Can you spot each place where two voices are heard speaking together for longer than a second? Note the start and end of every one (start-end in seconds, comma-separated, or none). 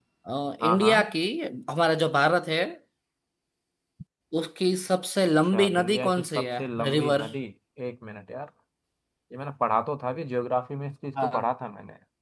5.5-7.3